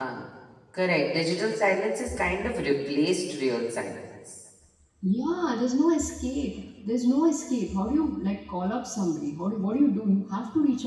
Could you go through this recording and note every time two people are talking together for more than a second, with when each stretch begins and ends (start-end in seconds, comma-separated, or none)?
none